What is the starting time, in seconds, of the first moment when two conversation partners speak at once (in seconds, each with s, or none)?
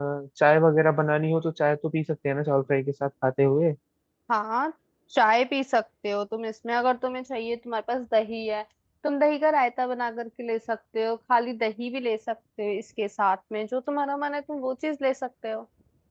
none